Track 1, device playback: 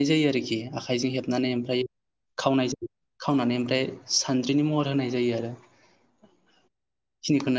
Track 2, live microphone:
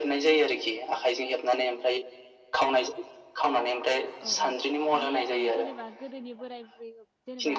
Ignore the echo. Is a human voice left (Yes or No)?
Yes